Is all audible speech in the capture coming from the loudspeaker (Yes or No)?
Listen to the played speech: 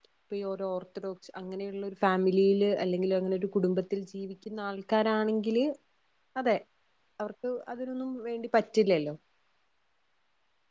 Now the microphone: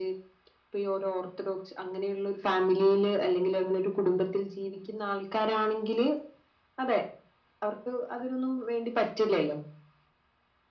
Yes